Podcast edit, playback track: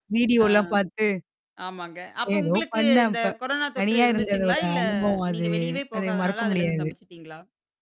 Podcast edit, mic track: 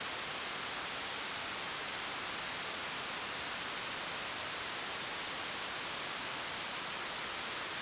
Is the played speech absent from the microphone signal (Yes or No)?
Yes